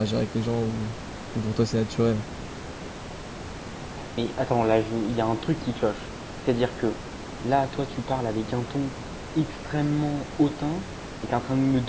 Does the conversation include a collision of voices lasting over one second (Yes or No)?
No